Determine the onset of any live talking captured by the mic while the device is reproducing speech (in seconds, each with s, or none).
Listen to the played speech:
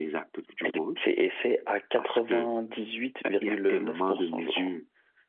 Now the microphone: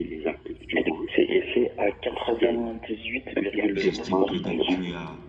3.7 s